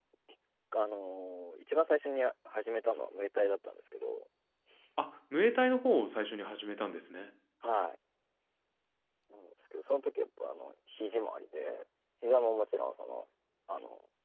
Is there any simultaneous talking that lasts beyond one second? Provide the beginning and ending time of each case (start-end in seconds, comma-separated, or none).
none